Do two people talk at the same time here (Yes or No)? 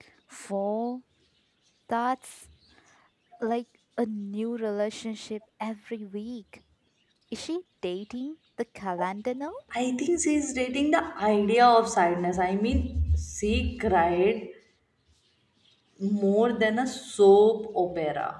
No